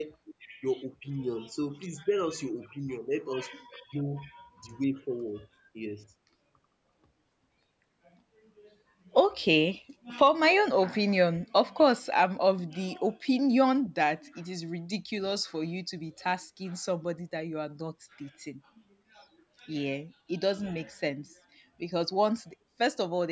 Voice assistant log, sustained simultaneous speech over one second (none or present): none